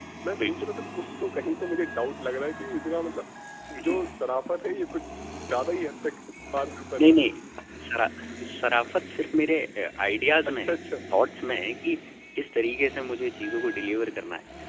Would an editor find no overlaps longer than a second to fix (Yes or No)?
Yes